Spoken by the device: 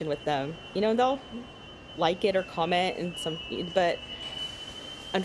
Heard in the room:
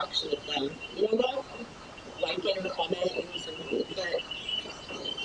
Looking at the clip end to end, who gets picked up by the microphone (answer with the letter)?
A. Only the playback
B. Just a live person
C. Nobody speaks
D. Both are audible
A